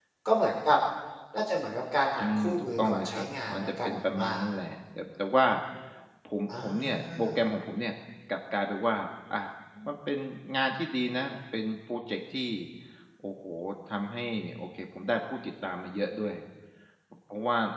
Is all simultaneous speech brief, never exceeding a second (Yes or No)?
No